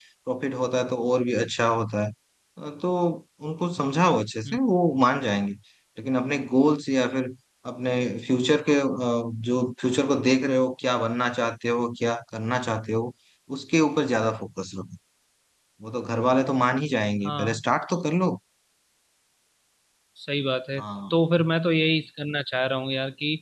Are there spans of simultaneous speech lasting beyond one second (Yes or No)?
No